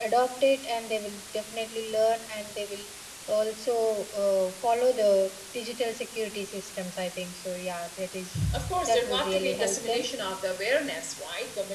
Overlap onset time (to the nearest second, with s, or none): 9 s